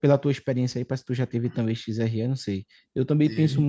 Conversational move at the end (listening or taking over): listening